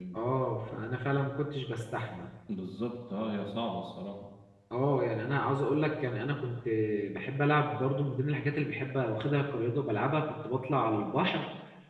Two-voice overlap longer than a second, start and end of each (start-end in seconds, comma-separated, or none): none